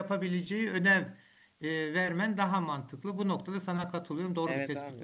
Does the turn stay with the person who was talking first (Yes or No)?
No